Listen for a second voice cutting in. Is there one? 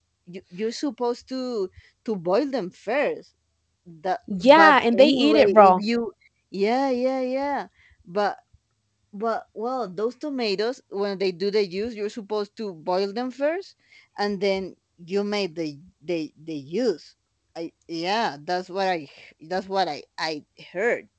Yes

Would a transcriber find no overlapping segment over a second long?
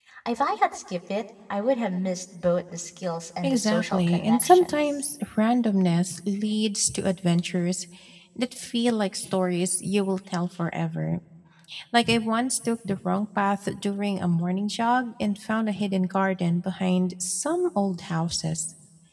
No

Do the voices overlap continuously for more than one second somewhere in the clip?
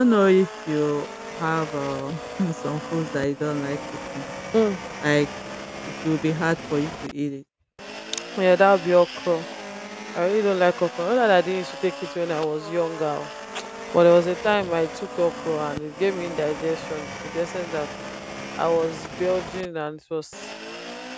No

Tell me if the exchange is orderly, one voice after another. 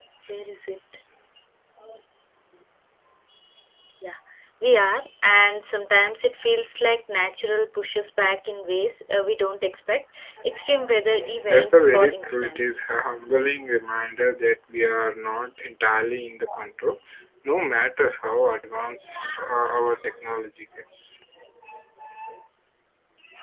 No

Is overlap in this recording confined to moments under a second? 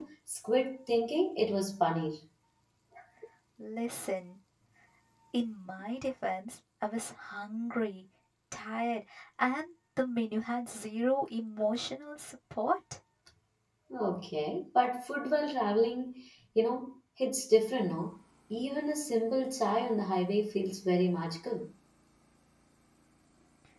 Yes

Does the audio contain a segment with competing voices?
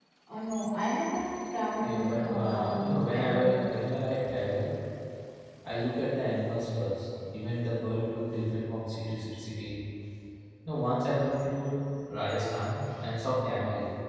Yes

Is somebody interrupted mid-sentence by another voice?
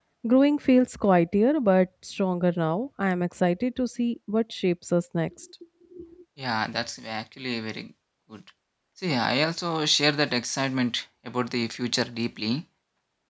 No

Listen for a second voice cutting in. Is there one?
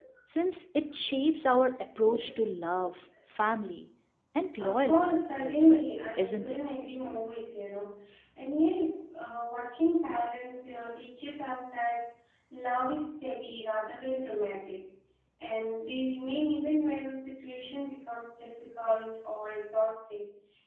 Yes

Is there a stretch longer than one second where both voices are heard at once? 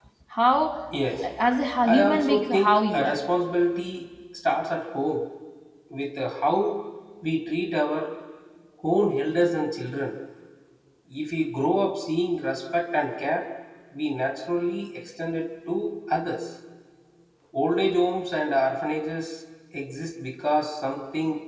Yes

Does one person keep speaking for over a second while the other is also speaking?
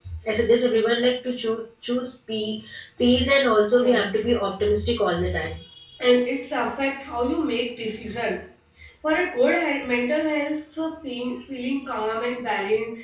No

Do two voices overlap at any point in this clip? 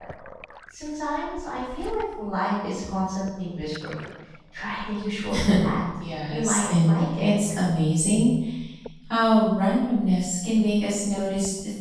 Yes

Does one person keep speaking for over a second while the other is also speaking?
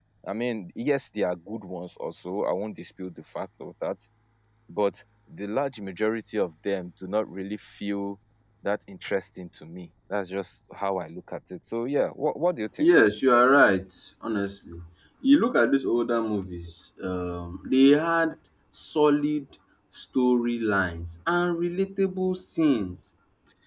No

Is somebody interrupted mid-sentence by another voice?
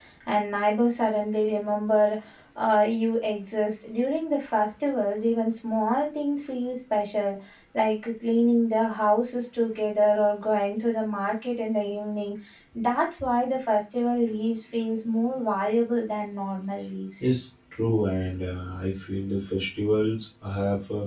No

